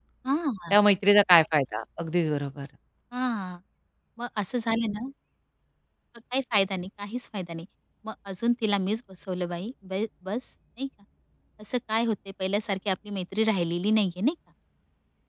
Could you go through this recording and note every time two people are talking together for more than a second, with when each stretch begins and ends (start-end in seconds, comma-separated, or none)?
none